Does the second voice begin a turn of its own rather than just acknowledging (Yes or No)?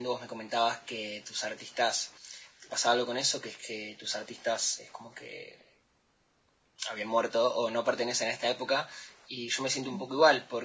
No